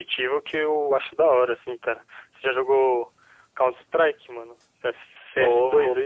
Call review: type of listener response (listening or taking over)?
taking over